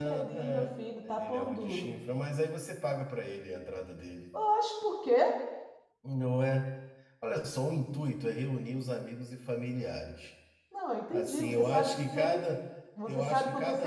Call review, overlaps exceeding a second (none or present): present